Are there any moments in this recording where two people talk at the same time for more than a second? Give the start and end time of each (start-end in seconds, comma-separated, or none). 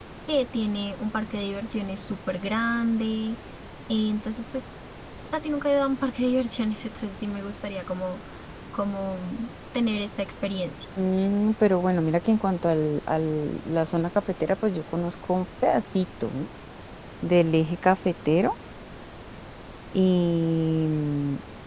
none